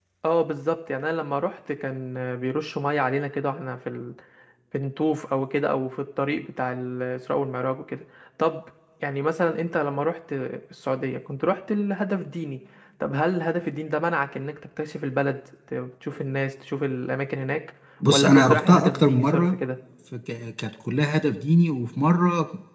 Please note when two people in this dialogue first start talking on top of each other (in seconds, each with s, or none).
18.1 s